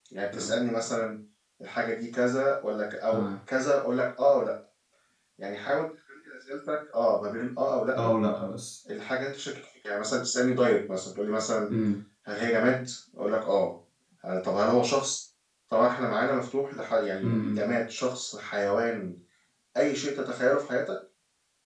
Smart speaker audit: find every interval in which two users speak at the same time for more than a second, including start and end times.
none

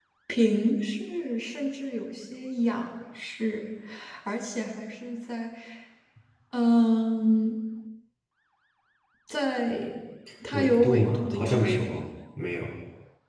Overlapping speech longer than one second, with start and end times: 10.5-12.0

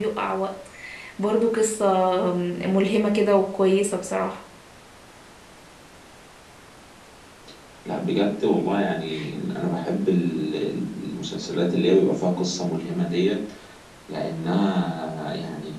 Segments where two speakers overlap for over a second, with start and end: none

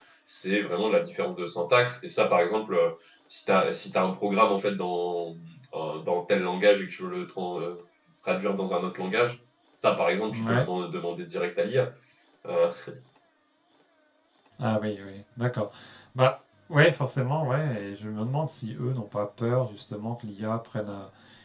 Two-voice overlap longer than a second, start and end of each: none

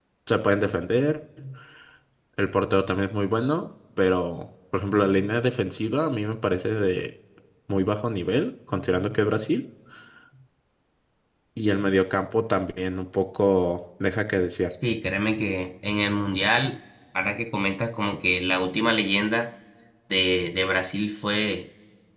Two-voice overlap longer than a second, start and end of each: none

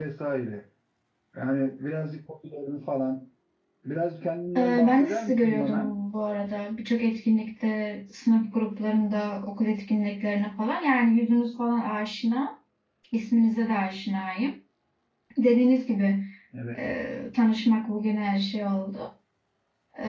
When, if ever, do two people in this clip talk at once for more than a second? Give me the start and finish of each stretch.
4.6-5.9

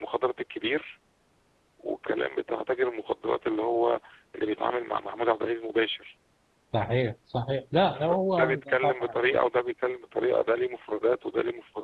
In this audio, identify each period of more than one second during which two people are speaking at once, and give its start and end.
7.9-9.1

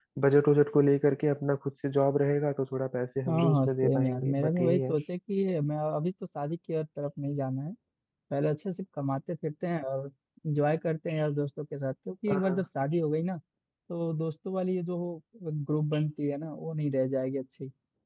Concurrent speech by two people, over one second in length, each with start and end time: 3.3-4.9

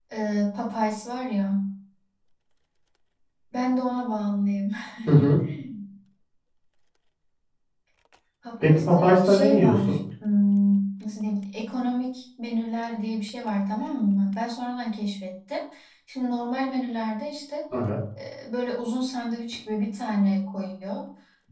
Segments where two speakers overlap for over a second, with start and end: 8.6-9.9

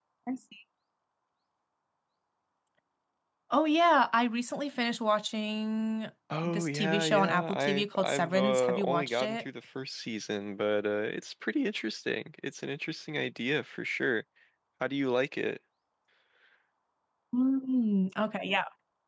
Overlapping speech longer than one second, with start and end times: 6.4-9.4

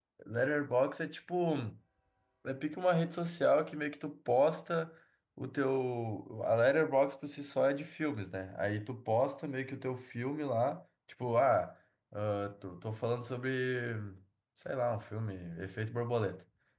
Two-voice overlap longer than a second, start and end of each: none

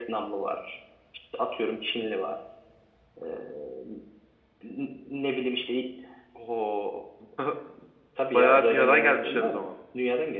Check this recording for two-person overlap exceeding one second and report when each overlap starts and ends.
8.3-9.7

